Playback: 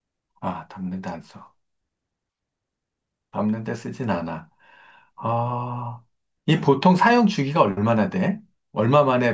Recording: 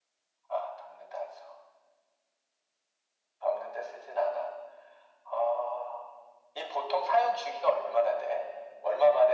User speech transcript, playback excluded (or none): none